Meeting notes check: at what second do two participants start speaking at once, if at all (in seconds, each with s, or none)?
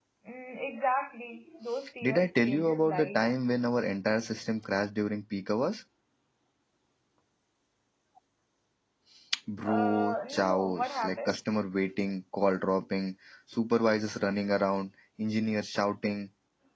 2.0 s